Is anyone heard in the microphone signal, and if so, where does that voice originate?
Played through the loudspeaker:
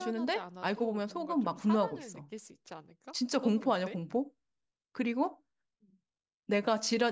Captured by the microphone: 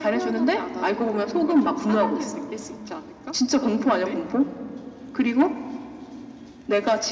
echo only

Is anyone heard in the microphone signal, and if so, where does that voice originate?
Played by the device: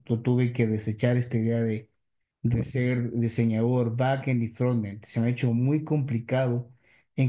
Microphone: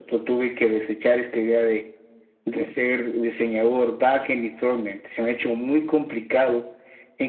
echo only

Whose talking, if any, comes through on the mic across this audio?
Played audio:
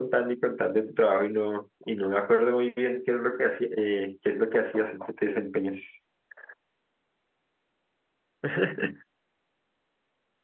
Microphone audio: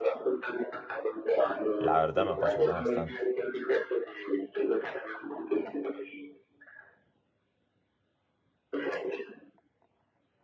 both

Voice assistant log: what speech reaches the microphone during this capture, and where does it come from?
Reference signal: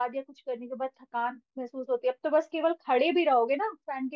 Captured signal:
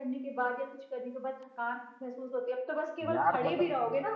both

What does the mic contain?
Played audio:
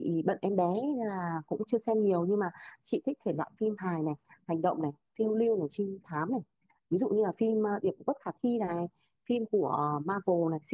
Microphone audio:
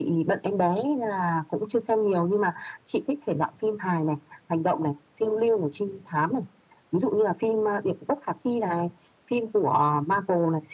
echo only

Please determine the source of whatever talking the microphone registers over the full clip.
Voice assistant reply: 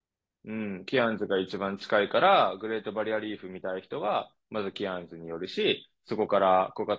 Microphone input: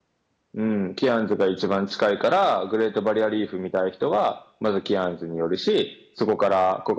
echo only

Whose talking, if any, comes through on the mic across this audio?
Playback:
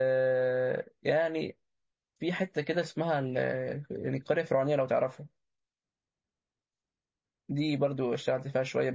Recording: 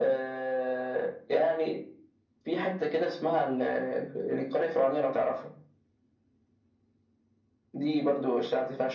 echo only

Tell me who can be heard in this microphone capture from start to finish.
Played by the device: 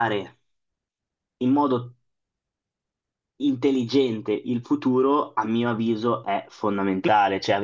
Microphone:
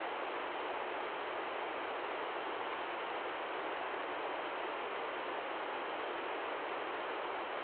neither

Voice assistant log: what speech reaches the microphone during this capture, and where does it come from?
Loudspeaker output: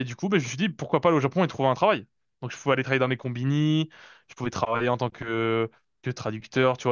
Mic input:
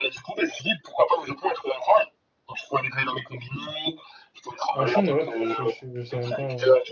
both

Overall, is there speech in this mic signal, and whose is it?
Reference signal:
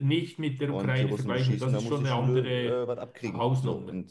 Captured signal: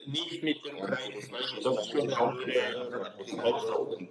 both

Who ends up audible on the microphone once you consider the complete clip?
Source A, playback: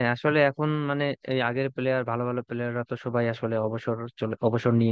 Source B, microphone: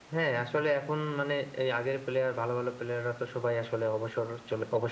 echo only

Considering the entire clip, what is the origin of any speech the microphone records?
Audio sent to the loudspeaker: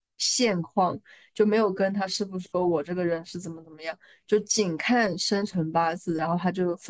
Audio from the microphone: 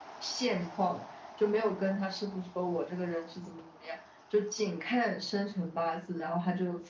echo only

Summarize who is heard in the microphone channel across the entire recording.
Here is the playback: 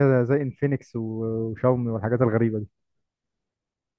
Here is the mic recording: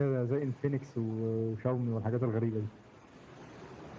echo only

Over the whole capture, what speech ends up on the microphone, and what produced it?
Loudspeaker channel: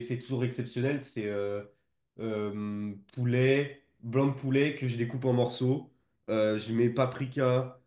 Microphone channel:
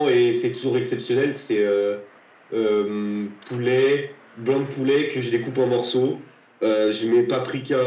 echo only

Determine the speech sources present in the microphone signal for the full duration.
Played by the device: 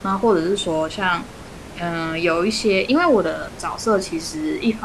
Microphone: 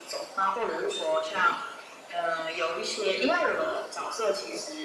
echo only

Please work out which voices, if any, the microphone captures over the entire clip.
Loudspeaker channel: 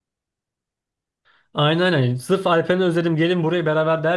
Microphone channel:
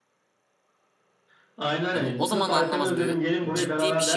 both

